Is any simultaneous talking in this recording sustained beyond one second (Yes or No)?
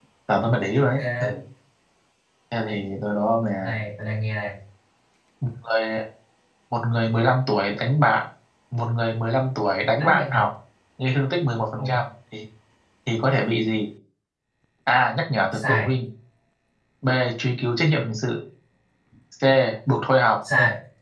No